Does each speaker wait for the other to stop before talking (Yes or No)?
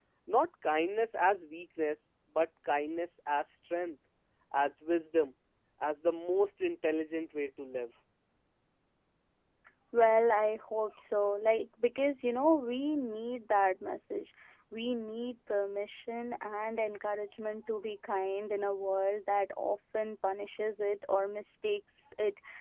Yes